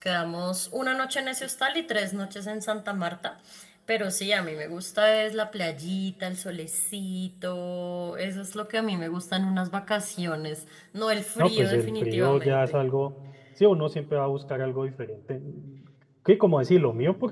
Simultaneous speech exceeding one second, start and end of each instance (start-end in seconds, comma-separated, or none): 11.4-12.8